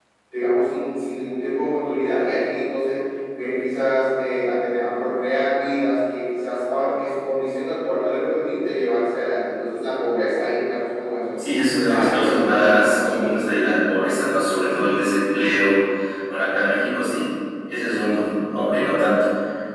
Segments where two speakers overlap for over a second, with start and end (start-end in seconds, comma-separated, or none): 11.8-13.3